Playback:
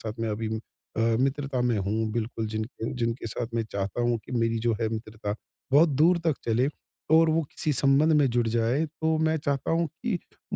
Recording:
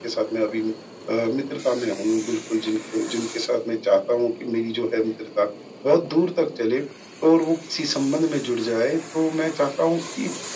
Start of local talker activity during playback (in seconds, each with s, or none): none